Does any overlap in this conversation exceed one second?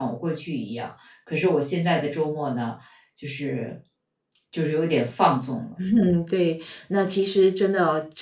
No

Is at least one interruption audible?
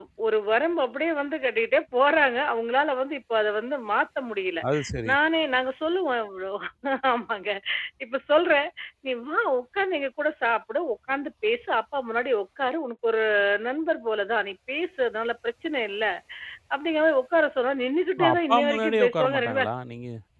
Yes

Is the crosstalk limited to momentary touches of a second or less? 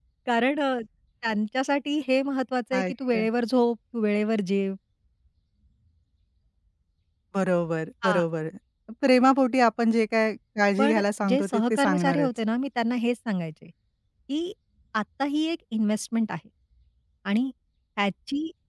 No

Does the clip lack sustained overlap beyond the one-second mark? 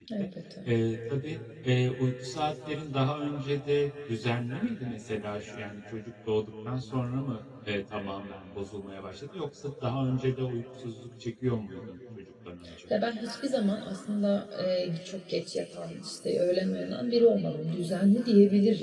Yes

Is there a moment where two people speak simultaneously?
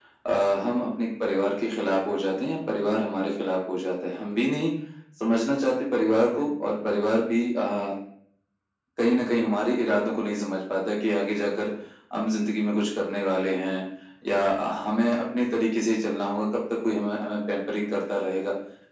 No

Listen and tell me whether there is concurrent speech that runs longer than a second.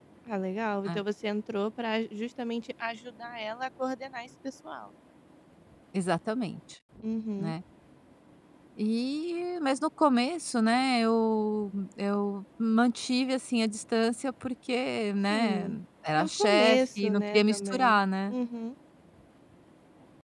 Yes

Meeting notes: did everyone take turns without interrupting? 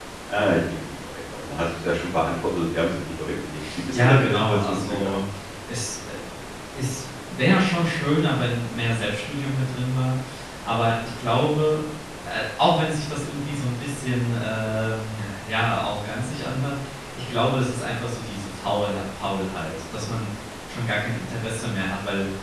No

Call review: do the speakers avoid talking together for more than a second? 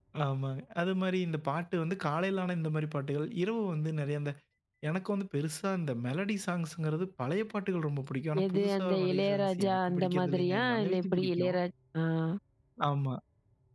No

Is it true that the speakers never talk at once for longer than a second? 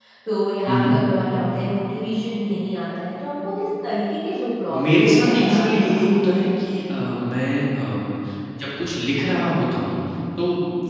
No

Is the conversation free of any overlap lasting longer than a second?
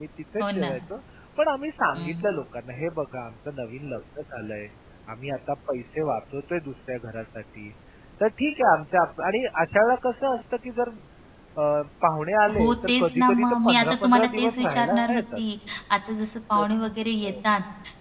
No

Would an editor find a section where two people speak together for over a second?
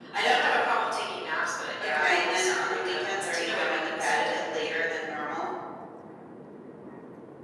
Yes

